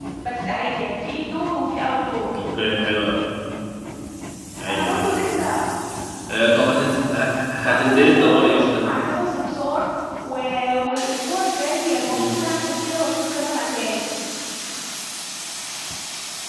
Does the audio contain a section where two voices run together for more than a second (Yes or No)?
Yes